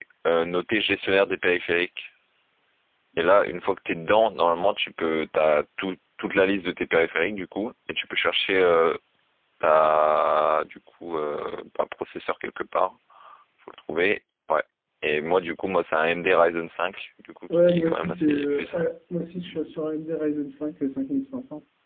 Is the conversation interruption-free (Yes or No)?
No